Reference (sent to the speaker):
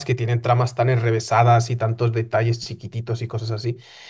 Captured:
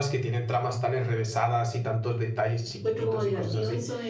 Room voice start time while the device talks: 2.7 s

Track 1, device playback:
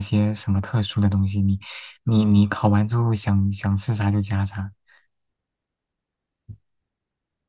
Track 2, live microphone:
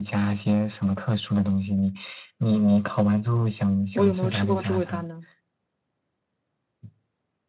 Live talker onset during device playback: 3.9 s

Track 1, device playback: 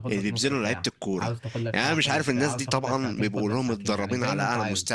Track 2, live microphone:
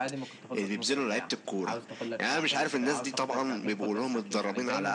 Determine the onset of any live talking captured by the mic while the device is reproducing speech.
none

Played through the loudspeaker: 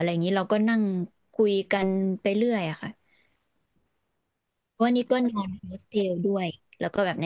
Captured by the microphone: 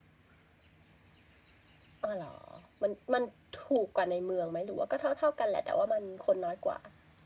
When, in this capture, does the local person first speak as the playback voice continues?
2.0 s

